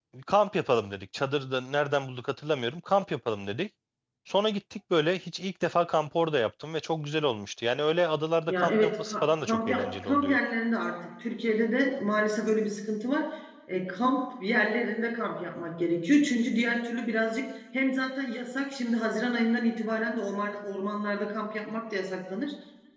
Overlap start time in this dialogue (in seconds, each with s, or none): 8.5 s